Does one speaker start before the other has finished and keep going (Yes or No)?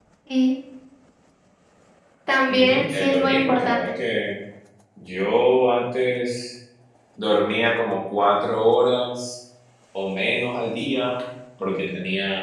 Yes